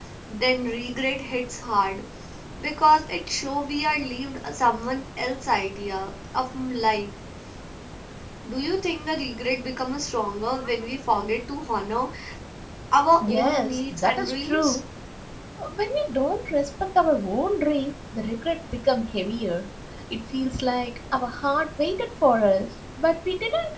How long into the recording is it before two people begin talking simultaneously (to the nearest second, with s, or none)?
13 s